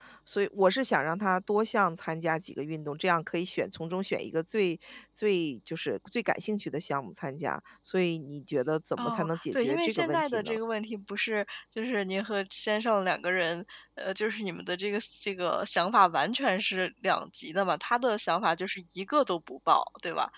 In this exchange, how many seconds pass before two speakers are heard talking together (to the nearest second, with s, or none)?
9 s